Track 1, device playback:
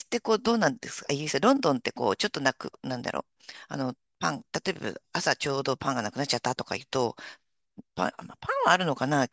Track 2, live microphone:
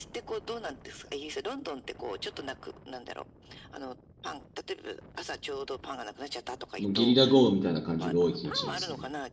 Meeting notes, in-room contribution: present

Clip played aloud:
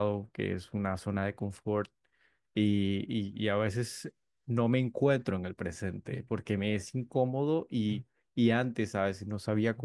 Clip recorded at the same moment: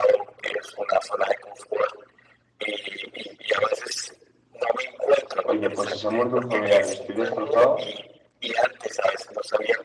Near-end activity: present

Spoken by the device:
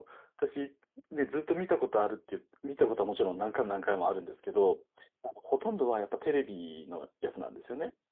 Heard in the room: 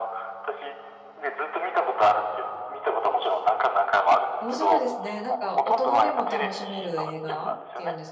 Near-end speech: present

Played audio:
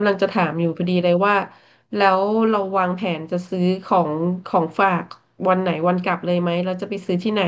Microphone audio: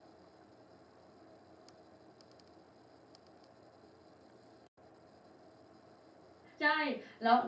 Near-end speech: present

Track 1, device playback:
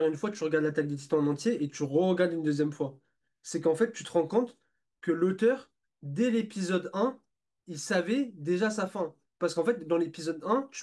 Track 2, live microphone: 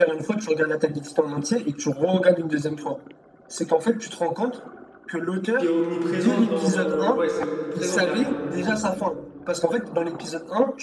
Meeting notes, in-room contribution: present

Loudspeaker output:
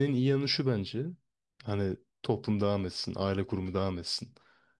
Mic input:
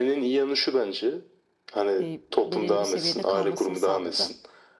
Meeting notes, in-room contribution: present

